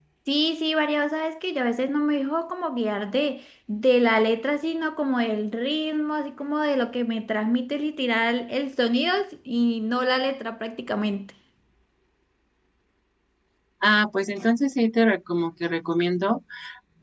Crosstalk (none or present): none